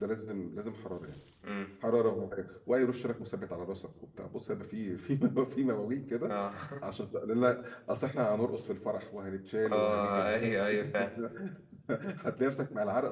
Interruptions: present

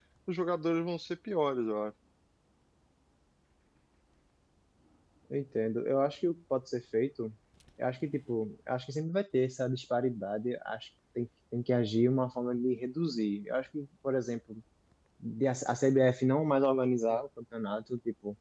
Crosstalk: none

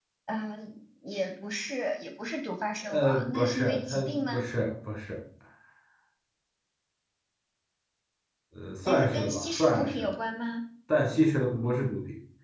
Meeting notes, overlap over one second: present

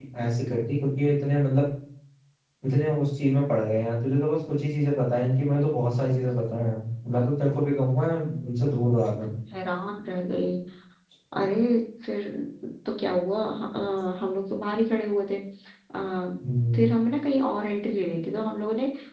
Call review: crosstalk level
none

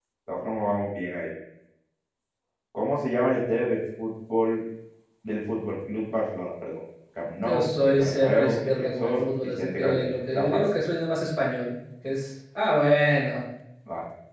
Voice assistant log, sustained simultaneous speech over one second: present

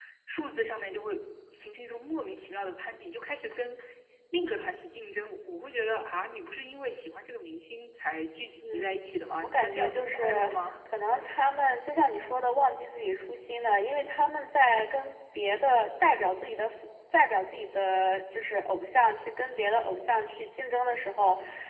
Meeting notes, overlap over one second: present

